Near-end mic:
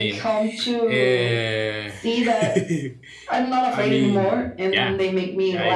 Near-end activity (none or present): present